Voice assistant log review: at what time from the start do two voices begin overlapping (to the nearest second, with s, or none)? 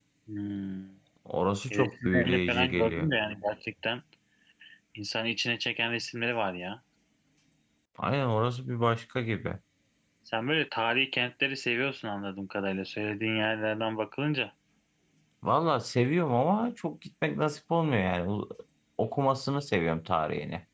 2 s